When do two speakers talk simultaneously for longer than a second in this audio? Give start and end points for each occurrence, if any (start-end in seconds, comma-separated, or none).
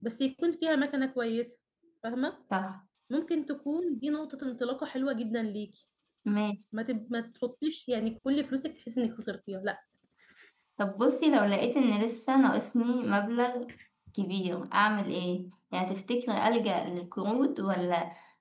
none